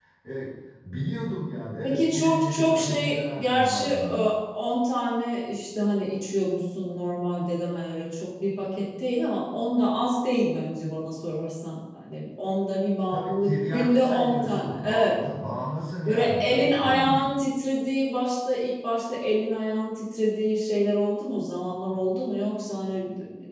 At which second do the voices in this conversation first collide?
1.8 s

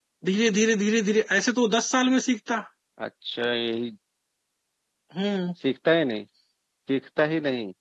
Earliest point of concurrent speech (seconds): none

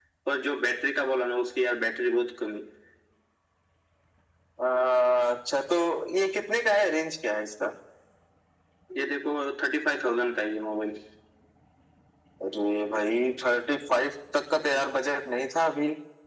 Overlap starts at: none

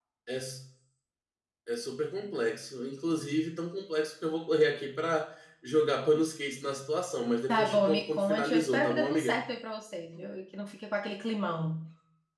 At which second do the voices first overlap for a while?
7.5 s

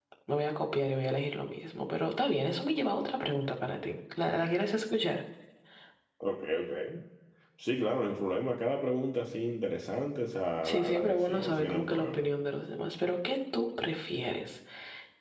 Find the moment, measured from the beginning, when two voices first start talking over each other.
10.6 s

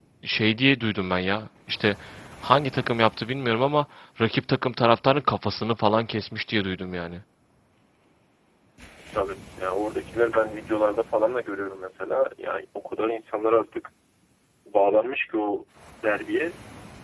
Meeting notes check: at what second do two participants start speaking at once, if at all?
none

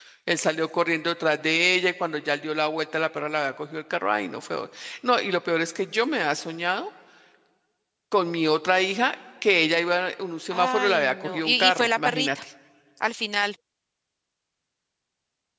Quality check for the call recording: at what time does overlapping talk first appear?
10.5 s

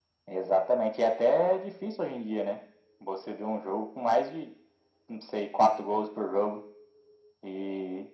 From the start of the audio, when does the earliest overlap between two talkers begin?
none

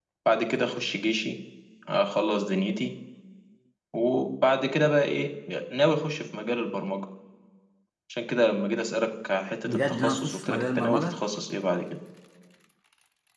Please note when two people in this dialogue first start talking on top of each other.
9.6 s

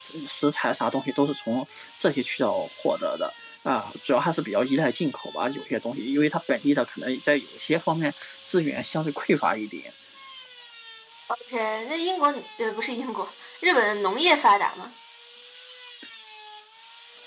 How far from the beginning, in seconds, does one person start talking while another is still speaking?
none

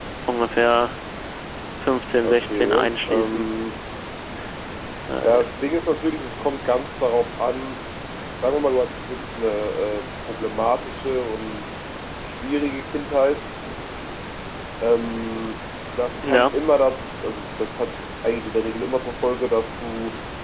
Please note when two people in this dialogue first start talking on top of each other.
2.2 s

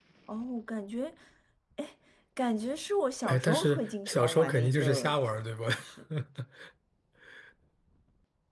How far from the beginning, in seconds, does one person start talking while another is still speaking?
3.2 s

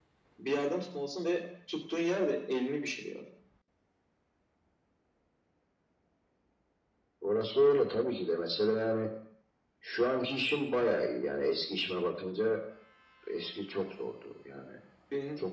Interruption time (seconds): none

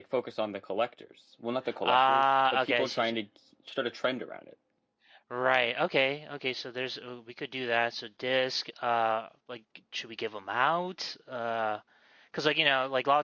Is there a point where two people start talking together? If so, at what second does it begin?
1.8 s

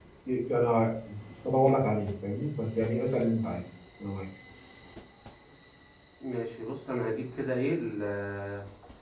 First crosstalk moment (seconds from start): none

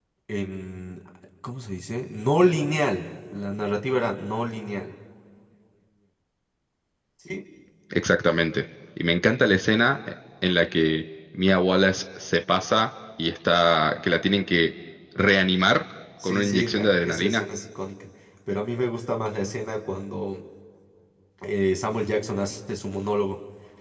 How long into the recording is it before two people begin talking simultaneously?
16.2 s

